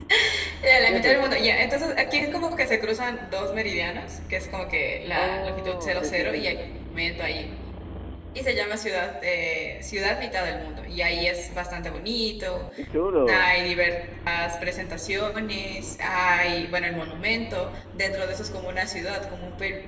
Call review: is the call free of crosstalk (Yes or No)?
No